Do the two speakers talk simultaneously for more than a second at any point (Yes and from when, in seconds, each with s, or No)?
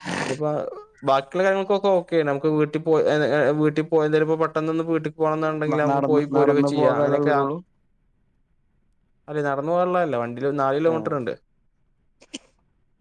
Yes, from 5.7 s